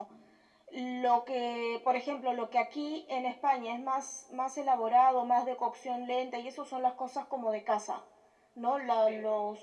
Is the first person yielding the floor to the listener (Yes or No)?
No